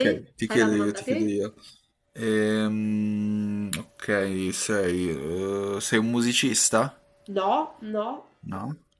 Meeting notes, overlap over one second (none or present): present